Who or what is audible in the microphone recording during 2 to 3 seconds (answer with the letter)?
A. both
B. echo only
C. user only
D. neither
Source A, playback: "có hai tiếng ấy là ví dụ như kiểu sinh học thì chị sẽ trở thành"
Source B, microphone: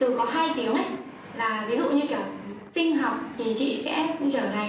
B